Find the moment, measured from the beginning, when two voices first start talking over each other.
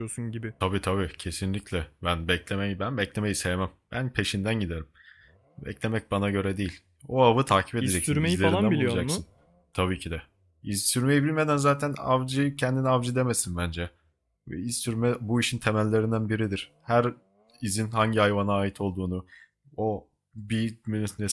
7.8 s

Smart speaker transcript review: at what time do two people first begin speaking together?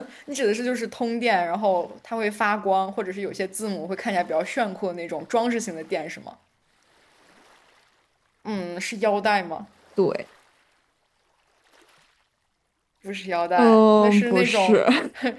13.6 s

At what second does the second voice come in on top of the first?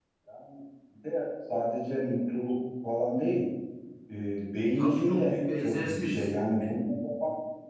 4.8 s

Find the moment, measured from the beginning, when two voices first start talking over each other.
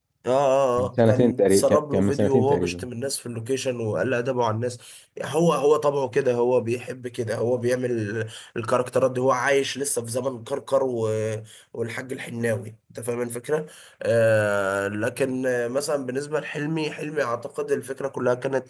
0.8 s

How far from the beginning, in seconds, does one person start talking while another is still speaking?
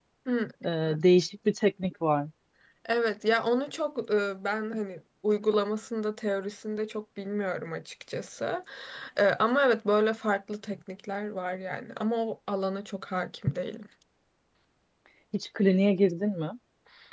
none

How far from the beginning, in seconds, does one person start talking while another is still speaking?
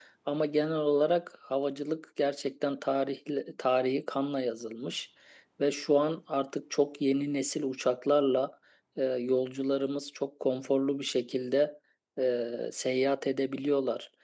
none

